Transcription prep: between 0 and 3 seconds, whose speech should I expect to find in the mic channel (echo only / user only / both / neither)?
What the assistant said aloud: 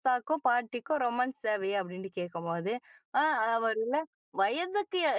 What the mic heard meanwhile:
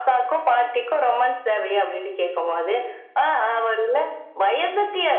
echo only